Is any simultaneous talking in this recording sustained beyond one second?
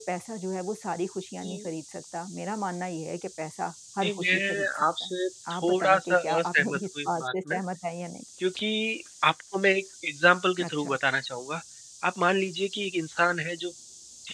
Yes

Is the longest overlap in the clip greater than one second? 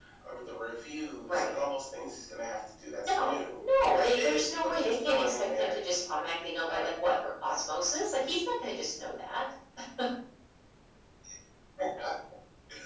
Yes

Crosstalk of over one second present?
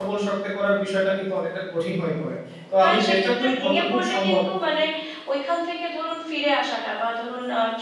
Yes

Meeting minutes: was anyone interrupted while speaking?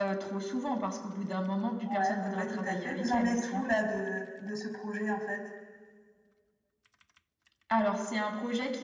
Yes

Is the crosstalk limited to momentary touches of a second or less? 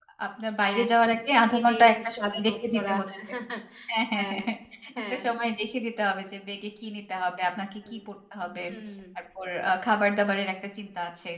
No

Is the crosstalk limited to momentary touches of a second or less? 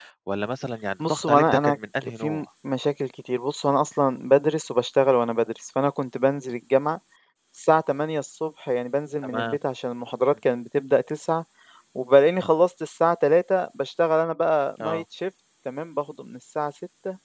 No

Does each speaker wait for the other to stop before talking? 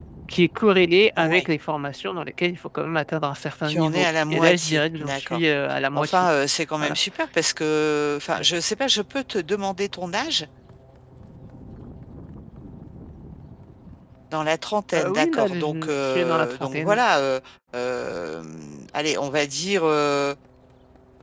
No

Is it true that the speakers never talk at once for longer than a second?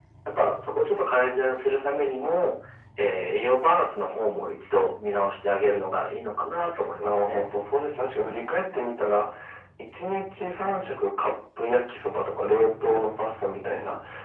Yes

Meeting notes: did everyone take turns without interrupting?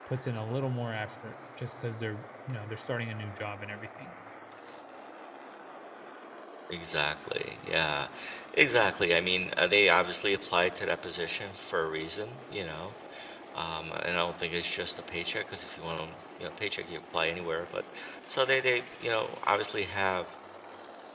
Yes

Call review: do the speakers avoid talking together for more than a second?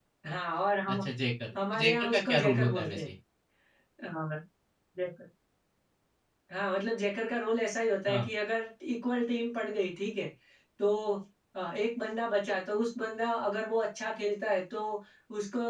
No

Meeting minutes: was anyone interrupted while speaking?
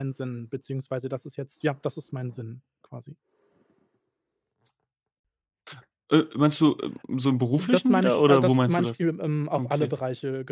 Yes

